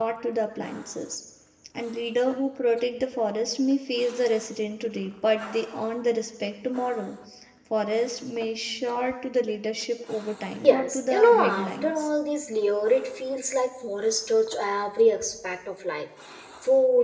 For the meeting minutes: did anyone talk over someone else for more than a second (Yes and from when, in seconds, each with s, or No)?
Yes, from 10.6 s